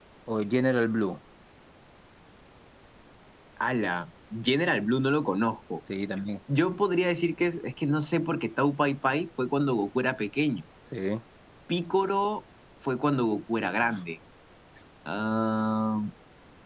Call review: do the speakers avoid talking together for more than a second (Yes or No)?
Yes